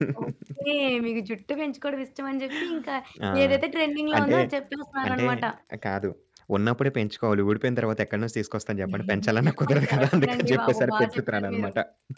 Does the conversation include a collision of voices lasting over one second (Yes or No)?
Yes